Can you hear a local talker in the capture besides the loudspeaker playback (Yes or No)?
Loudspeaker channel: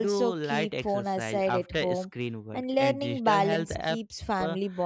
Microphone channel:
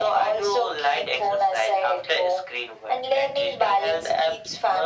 No